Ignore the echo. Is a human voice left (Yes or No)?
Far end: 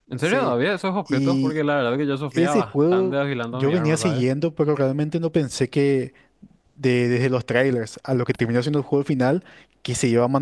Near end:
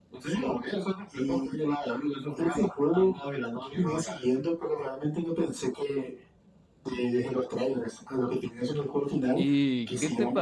Yes